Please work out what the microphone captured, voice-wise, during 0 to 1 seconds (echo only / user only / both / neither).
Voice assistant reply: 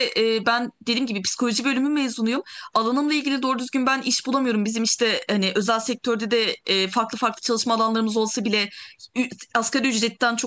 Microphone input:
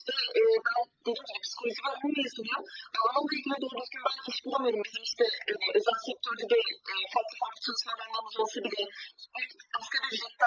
echo only